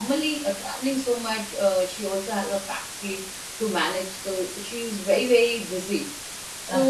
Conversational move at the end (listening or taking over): listening